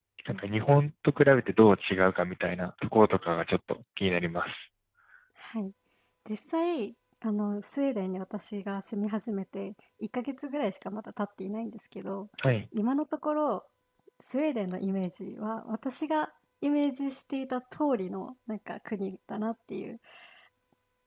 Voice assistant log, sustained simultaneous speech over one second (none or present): none